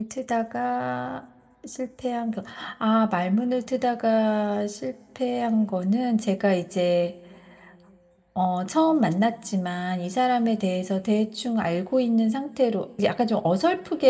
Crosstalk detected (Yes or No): No